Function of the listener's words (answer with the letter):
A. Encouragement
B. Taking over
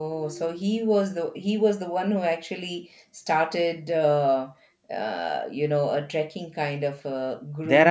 B